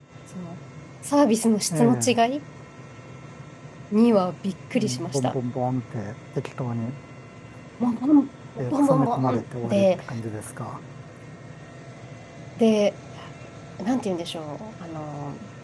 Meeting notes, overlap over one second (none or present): present